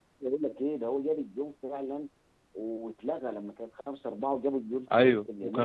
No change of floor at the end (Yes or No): No